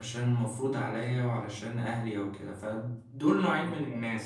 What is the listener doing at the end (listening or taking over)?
listening